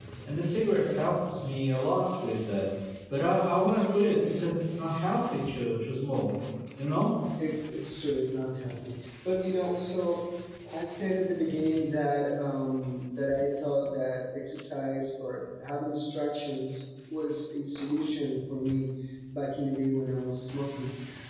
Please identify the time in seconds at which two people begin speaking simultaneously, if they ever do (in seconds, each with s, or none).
none